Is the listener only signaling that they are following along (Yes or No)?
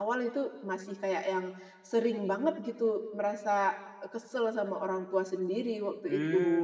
No